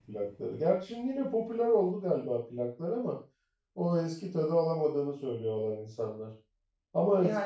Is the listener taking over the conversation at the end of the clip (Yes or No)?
No